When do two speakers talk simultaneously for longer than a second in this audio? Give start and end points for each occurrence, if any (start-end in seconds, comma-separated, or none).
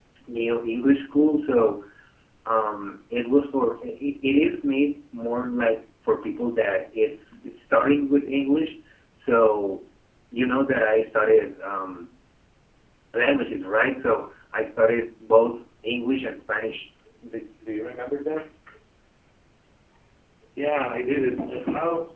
none